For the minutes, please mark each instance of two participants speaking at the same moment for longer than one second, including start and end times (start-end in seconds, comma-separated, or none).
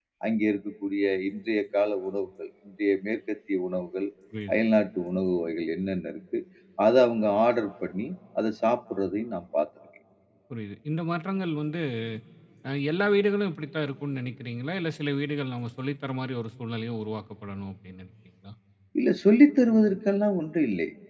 none